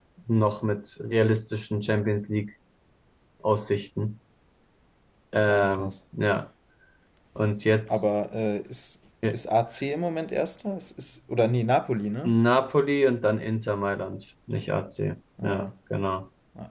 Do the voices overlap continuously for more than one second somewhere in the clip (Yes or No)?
No